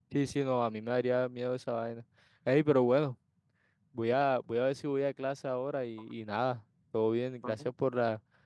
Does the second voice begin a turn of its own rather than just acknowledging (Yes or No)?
No